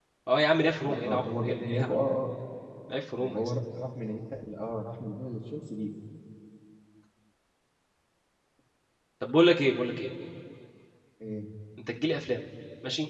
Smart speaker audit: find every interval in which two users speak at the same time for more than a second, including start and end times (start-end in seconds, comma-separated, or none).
0.8-2.1